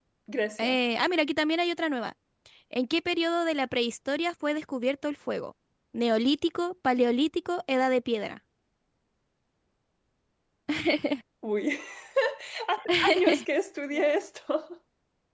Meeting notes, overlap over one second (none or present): none